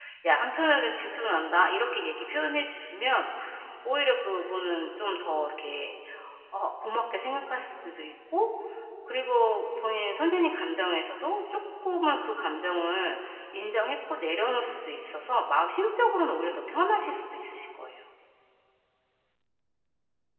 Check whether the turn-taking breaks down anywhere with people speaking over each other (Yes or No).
No